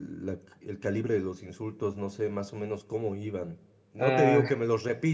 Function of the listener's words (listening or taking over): listening